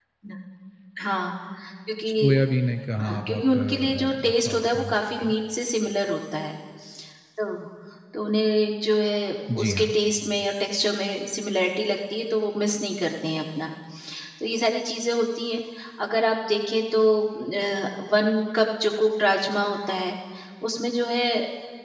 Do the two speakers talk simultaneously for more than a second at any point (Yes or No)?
Yes